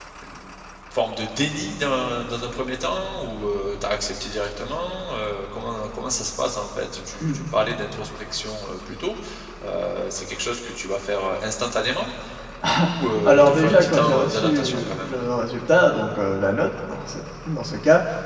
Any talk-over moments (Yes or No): Yes